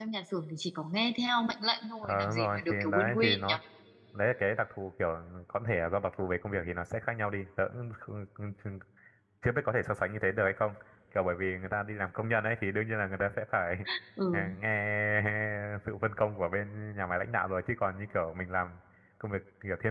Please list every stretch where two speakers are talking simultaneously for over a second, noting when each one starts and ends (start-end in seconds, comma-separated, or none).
2.0-3.5